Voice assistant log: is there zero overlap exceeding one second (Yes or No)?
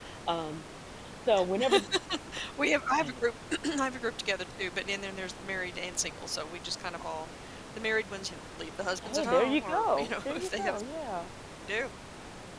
No